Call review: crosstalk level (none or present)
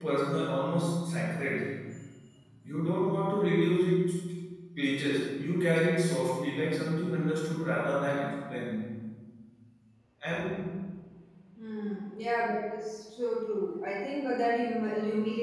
none